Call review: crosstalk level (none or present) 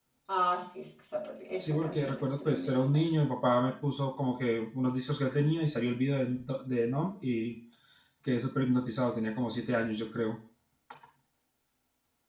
present